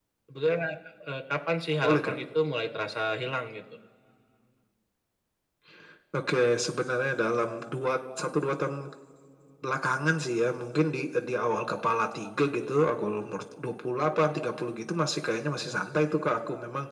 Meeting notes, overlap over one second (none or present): none